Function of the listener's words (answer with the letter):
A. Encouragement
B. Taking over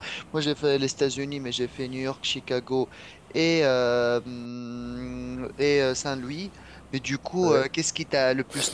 A